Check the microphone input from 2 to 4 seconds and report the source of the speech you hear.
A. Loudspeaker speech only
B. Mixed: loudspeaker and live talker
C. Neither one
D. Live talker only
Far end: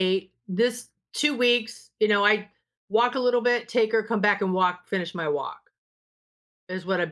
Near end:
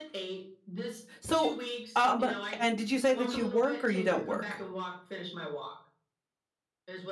B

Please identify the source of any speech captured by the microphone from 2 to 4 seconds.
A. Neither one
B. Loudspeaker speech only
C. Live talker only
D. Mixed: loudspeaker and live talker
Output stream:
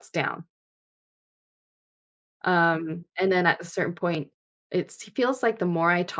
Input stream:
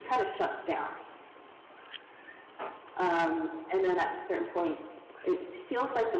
B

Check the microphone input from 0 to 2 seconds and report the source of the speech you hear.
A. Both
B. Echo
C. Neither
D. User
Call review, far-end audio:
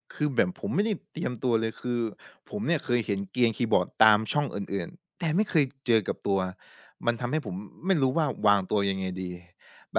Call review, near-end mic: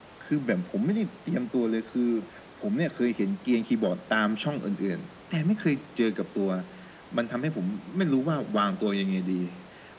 B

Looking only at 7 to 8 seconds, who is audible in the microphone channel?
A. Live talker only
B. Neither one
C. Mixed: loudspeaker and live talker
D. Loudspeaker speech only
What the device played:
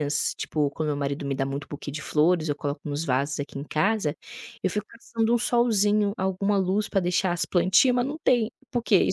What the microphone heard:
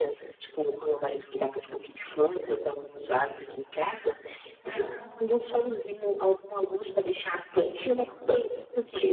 D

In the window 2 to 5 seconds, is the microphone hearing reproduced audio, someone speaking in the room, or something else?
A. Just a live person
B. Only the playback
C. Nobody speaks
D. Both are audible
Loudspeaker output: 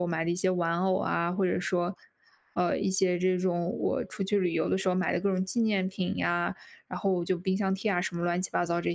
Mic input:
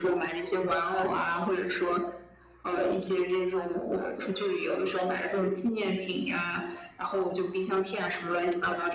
B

